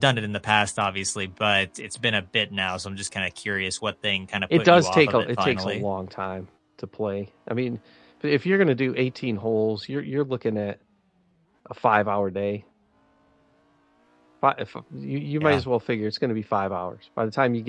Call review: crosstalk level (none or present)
present